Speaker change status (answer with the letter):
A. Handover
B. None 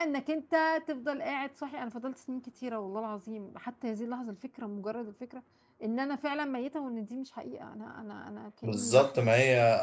A